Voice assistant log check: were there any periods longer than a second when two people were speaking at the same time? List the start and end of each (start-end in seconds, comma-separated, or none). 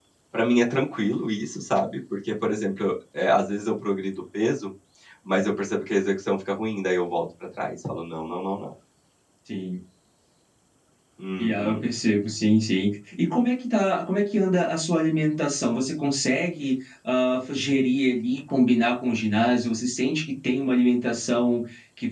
none